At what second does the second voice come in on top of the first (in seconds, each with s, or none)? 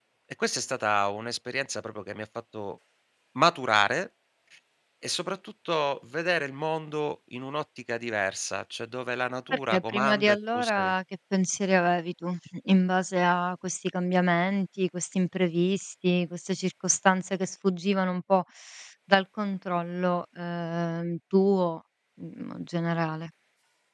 9.5 s